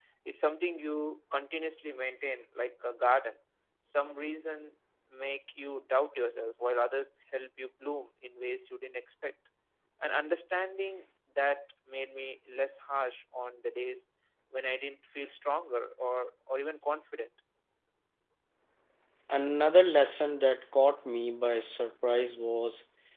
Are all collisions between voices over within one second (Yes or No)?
Yes